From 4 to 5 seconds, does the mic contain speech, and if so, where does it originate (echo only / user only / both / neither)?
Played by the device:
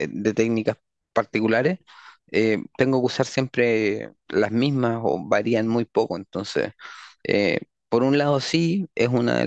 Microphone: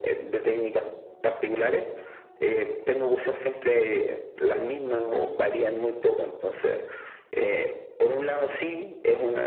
echo only